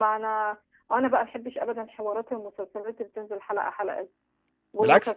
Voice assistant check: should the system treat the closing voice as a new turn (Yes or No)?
No